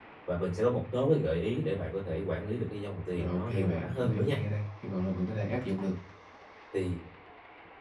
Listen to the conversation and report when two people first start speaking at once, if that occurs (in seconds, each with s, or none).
3.1 s